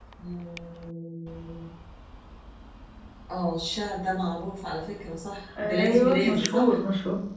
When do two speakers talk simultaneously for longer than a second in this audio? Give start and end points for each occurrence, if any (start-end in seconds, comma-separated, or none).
5.6-6.8